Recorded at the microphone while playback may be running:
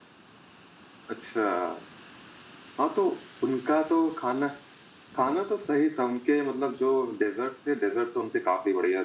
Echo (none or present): none